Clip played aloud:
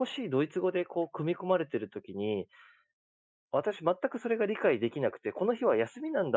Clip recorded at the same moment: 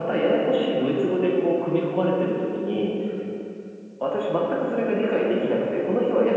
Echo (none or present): present